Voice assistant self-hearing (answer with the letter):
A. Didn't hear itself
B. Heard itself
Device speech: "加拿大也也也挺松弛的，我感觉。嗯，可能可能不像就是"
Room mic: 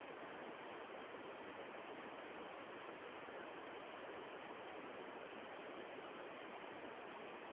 A